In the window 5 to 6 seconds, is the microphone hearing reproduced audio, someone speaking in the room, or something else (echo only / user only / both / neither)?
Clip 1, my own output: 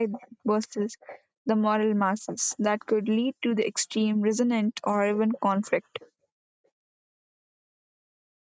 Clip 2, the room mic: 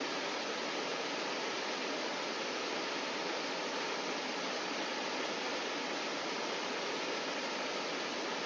neither